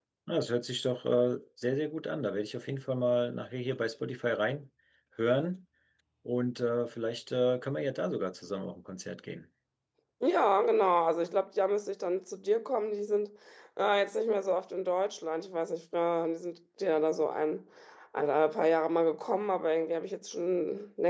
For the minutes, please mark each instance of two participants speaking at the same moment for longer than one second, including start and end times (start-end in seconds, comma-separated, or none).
none